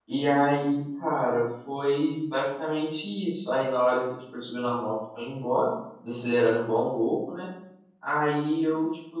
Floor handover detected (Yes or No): No